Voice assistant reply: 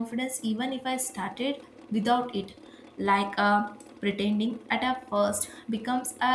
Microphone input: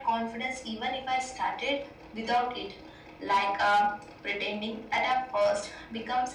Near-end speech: none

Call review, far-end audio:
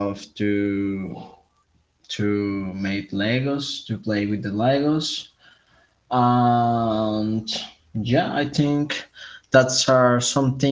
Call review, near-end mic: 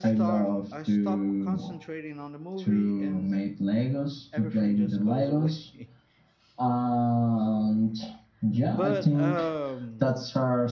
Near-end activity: present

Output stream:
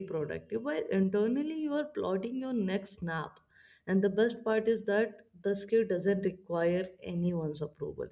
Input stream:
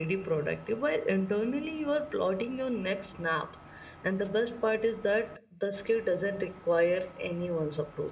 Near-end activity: none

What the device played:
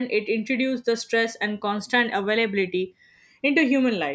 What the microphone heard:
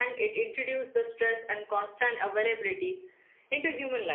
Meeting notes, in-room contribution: none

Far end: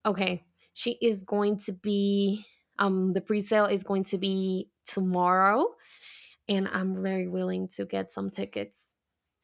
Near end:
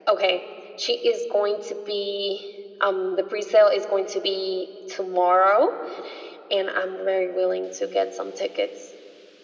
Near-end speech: none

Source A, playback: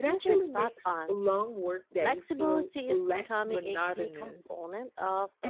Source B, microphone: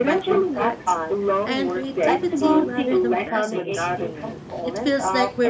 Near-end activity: present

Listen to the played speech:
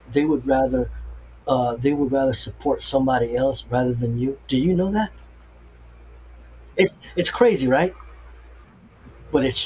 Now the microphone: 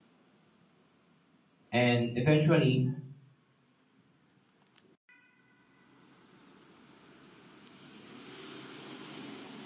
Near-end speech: present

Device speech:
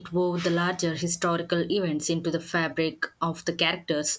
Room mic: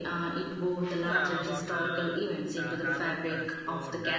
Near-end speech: present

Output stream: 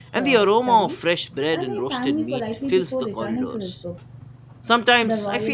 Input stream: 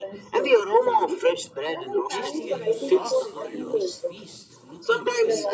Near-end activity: present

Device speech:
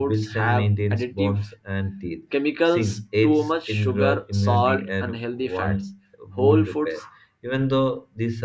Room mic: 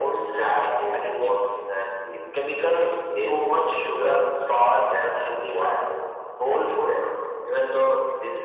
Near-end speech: none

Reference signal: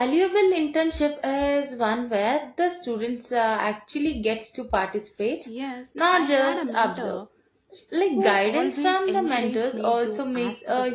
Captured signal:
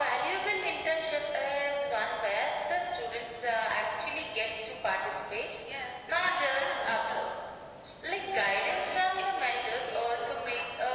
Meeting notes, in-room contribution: none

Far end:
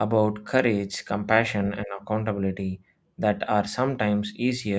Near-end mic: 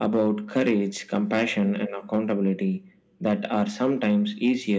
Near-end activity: none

